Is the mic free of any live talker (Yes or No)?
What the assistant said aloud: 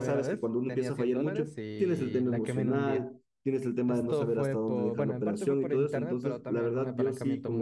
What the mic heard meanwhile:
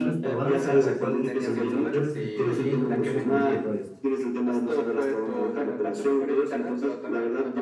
No